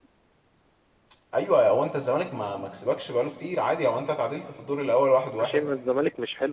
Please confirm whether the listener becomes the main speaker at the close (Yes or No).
Yes